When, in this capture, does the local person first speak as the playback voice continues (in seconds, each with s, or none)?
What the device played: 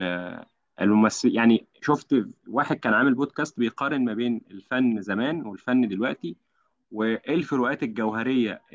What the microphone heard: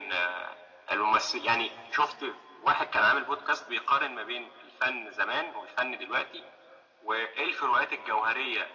none